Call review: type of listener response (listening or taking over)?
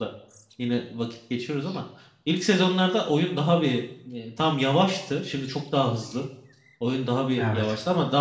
listening